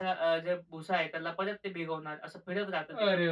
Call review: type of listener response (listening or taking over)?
taking over